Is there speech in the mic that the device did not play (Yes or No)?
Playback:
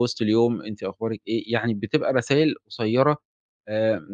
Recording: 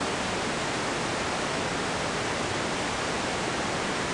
No